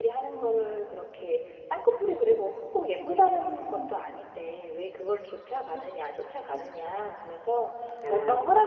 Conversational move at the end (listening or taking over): listening